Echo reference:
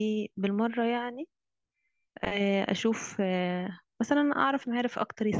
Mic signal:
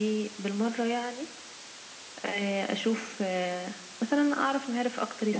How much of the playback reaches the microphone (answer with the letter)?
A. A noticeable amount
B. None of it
A